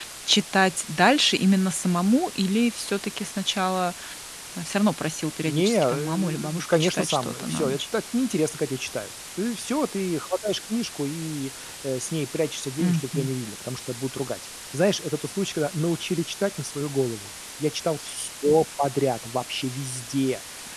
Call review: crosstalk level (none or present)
present